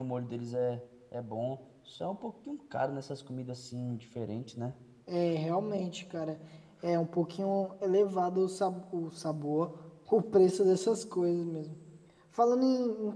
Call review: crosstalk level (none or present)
none